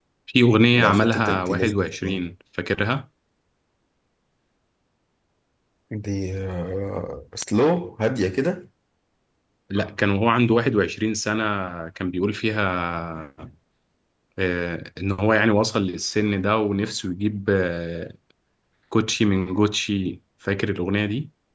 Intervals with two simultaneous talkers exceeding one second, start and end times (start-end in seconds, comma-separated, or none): 0.8-2.2